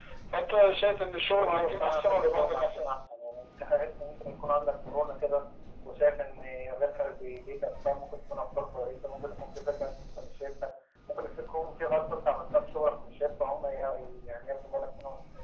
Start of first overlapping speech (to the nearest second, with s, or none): 1 s